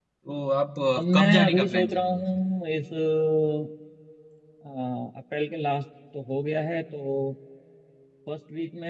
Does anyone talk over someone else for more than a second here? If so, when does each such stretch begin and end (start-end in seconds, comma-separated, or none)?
1.0-2.4